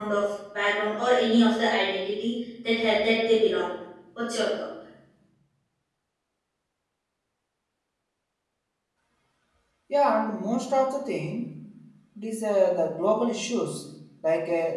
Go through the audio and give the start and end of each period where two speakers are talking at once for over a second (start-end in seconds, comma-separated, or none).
none